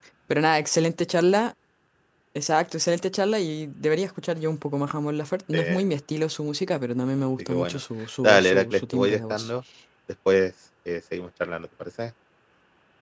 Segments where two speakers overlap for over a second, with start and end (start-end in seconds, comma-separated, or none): 8.2-9.5